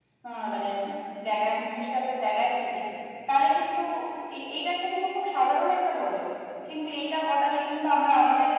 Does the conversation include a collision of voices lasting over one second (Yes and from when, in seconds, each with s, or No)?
No